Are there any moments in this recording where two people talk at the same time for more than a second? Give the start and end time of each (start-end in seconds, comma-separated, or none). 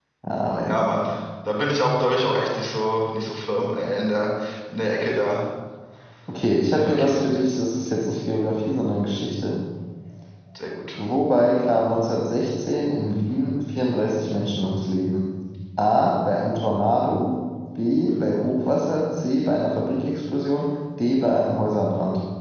none